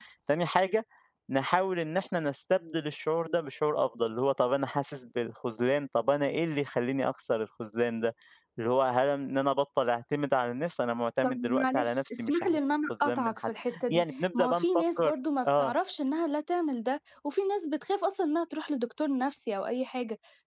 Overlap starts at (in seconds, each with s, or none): 11.2 s